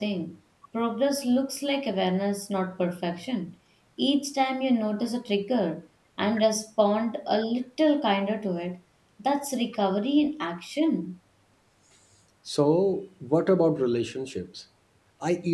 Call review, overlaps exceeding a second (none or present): none